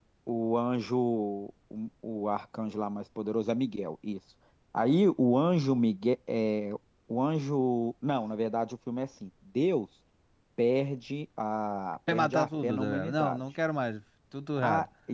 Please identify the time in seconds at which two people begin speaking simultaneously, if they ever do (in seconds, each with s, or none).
12.1 s